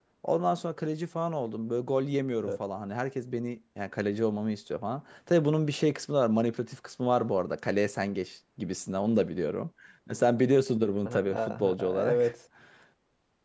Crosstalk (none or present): present